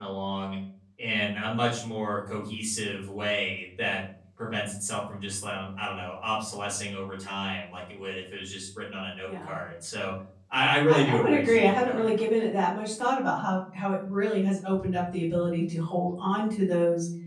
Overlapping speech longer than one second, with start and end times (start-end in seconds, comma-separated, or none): 10.8-12.1